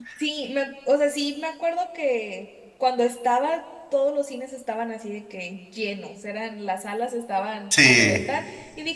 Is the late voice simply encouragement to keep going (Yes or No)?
Yes